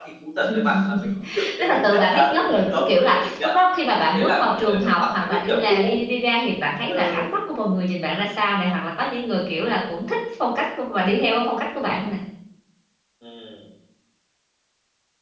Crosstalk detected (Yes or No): Yes